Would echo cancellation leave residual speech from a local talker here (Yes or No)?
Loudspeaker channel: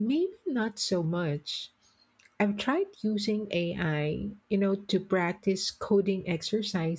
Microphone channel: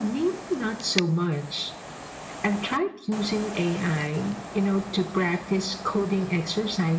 No